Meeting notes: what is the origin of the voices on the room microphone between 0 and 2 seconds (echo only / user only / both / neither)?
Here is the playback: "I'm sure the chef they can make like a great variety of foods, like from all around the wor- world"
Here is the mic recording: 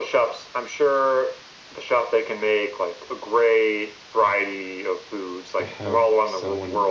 echo only